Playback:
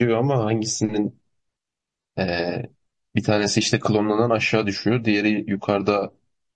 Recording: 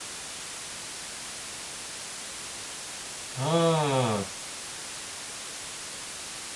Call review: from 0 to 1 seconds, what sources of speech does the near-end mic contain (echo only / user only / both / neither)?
neither